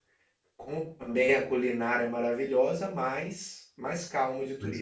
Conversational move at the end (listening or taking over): taking over